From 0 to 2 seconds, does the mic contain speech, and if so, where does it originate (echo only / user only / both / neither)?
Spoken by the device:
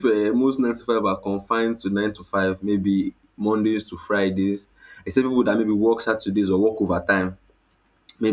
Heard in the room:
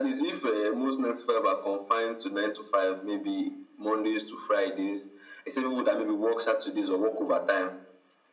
echo only